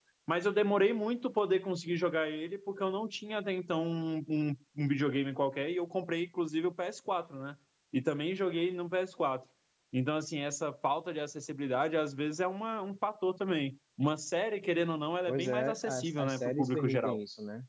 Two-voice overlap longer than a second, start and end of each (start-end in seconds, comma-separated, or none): 15.3-17.2